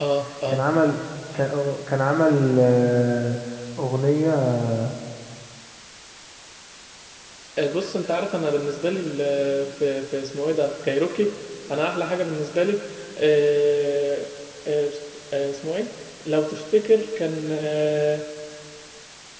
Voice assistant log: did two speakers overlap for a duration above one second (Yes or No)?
No